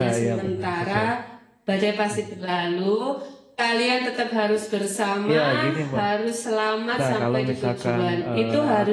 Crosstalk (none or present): present